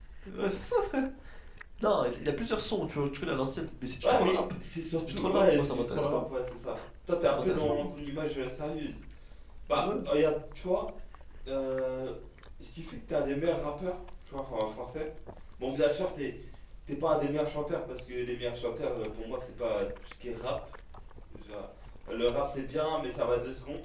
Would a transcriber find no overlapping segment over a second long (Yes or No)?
No